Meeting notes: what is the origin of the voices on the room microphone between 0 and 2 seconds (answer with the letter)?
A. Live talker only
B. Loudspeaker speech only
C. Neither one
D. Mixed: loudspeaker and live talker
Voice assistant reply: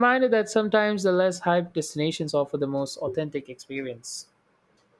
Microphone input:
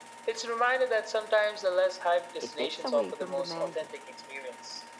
B